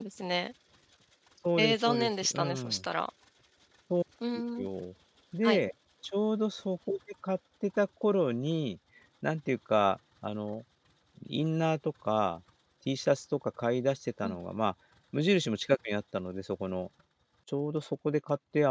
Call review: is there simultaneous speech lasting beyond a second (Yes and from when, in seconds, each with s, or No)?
Yes, from 1.6 s